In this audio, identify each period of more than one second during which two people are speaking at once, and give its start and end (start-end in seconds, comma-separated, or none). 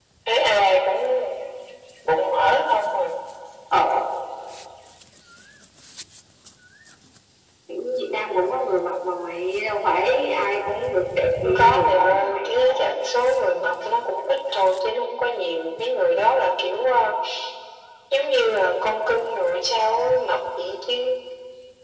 11.4-12.9